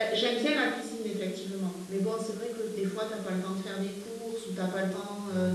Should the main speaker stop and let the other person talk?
No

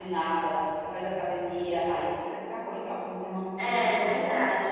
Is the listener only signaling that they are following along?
No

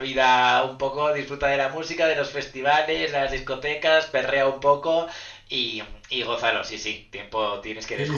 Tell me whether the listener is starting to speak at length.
Yes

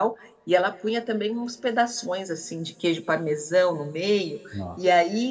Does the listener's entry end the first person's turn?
No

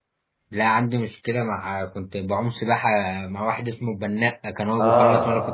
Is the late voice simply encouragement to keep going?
No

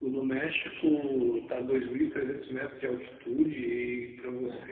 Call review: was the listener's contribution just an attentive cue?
Yes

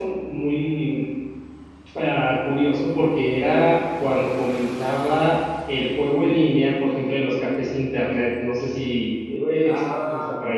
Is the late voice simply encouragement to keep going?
No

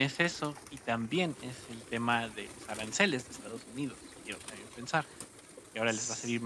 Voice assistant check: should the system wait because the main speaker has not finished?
Yes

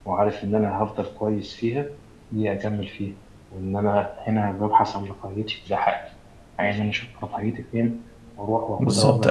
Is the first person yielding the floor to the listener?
Yes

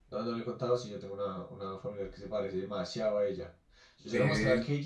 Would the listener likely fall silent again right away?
Yes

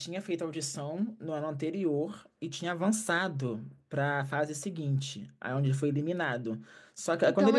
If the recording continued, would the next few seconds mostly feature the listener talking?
Yes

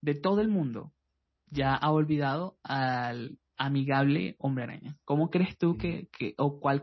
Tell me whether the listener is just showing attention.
Yes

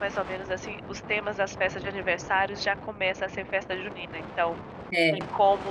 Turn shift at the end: No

